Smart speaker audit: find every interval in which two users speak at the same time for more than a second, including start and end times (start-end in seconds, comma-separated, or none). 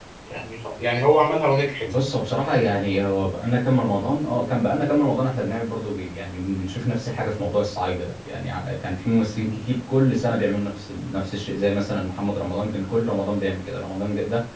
none